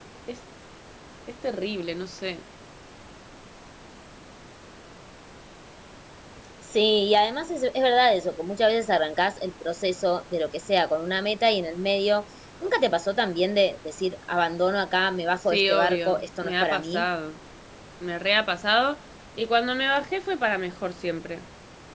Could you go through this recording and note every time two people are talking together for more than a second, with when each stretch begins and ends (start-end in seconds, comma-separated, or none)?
15.5-17.1